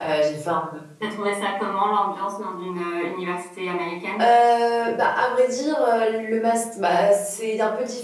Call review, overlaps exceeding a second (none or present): none